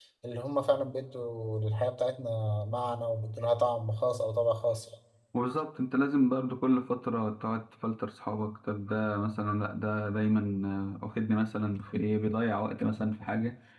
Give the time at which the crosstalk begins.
none

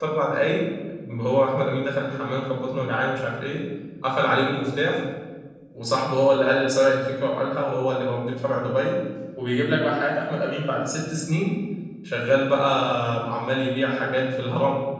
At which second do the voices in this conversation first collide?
none

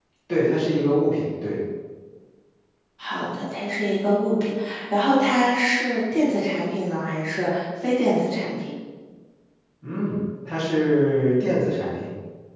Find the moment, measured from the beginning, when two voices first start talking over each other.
none

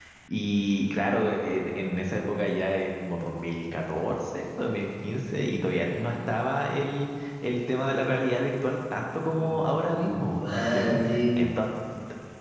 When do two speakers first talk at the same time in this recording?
9 s

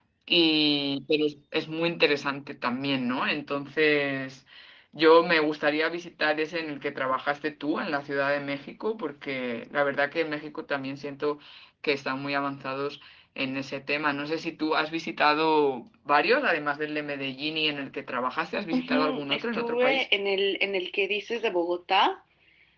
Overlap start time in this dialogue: 19 s

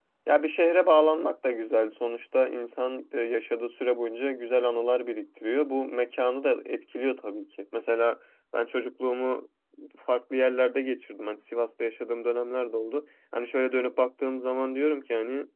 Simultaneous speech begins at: none

